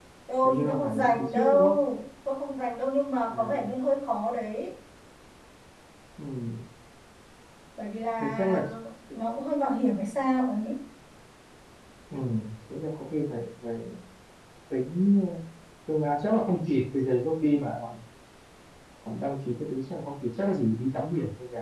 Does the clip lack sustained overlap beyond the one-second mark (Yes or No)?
No